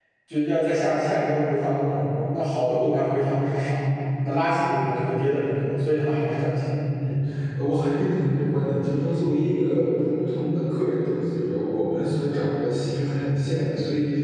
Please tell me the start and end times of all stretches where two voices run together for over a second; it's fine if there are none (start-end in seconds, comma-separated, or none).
none